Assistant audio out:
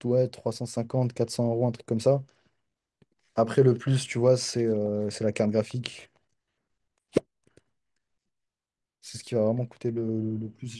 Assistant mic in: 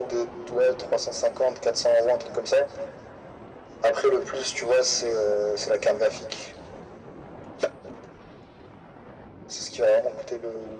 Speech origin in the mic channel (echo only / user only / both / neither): echo only